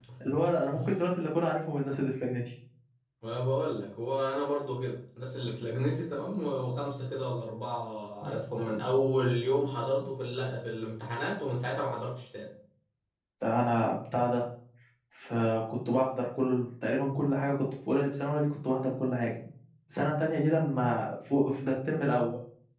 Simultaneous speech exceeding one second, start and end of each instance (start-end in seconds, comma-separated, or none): none